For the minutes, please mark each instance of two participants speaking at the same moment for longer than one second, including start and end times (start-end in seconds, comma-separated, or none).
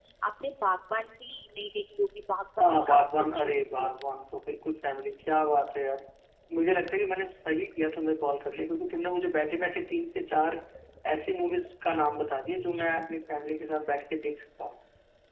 2.6-3.9